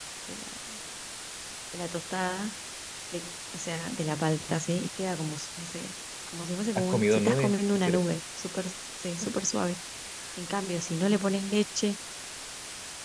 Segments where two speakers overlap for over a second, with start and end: 6.8-8.2

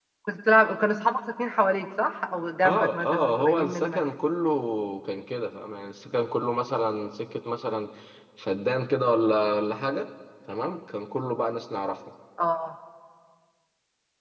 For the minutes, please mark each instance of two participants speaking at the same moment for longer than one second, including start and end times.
2.6-4.0

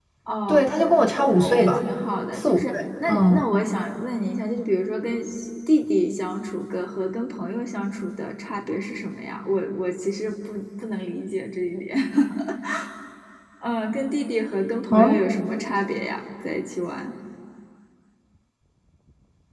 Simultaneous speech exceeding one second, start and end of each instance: none

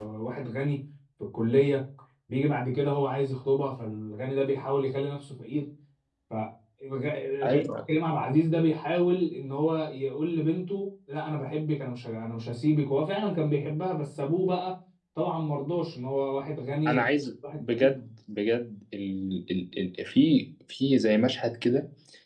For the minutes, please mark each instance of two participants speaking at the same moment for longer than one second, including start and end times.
none

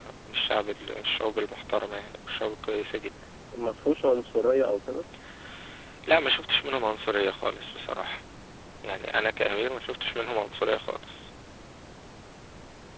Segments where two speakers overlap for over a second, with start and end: none

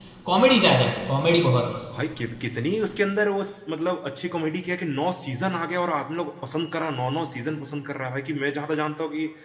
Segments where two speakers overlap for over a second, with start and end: none

